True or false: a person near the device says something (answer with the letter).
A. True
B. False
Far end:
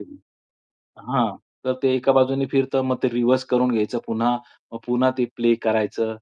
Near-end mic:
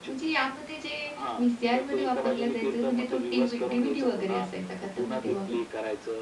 A